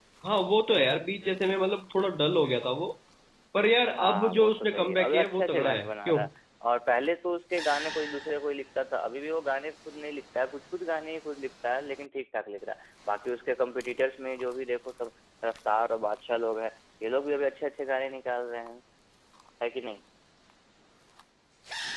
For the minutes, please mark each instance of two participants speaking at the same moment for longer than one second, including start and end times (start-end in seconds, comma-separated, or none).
4.0-6.2